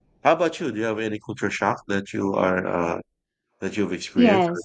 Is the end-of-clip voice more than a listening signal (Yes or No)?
Yes